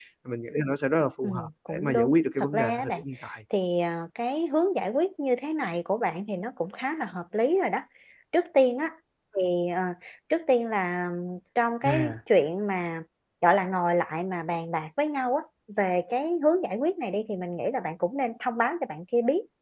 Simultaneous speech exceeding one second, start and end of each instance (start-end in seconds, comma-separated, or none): 1.2-3.0